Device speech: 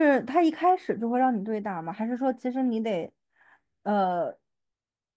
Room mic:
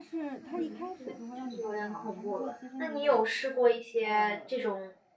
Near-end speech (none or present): present